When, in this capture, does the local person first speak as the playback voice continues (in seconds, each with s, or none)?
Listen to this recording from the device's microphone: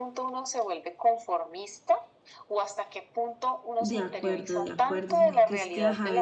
3.8 s